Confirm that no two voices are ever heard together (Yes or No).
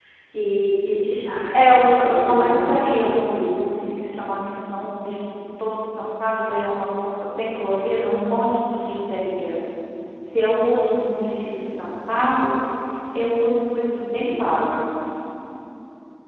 No